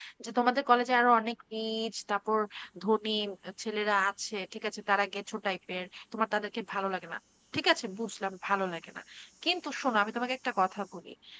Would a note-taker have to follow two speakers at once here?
No

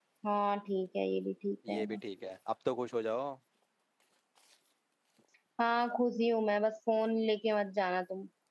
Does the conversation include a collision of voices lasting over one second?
No

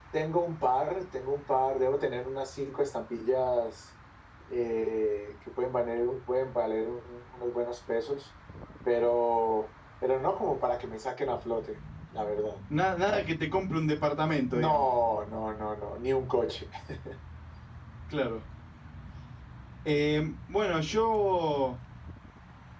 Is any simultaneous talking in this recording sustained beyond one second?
No

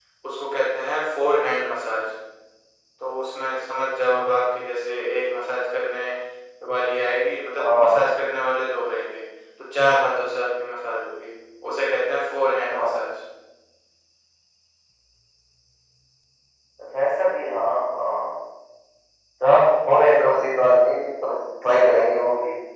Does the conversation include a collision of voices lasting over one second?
No

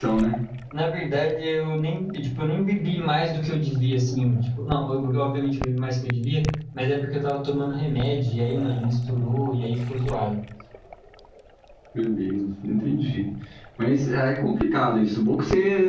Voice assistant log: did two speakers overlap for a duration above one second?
No

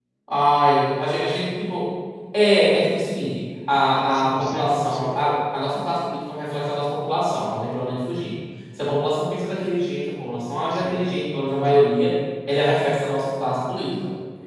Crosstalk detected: Yes, from 3.8 s

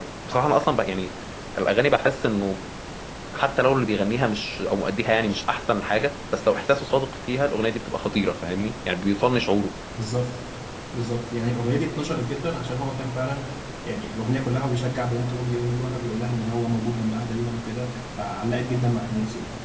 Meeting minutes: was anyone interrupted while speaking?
No

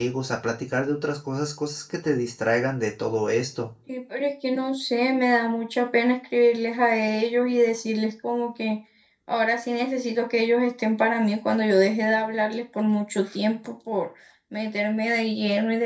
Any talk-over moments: No

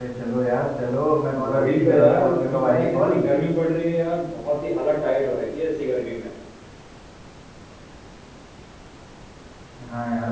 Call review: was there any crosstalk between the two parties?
Yes, from 1.4 s

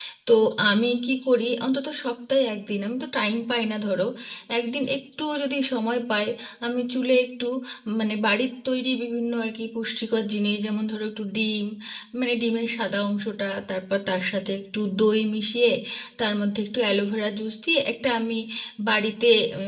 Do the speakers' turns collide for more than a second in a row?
No

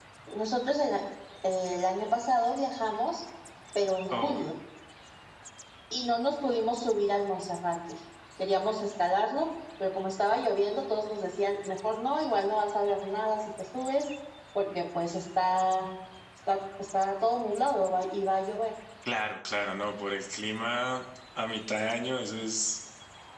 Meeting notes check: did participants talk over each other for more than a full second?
No

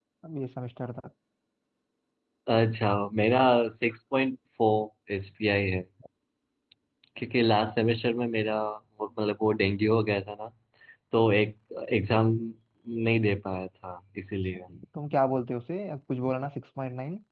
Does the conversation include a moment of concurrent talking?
No

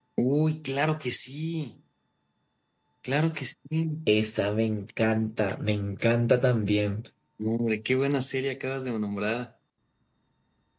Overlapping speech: No

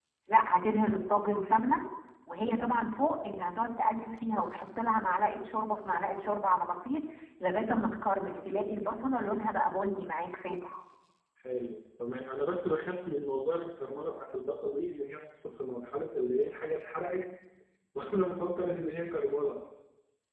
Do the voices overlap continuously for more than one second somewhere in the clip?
No

